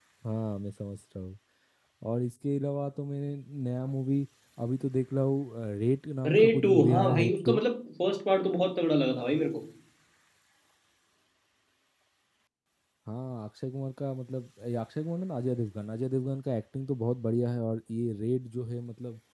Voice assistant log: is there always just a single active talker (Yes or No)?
No